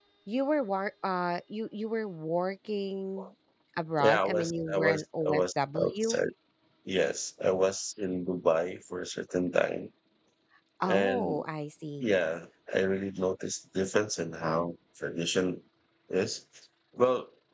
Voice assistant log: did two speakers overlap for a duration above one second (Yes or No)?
Yes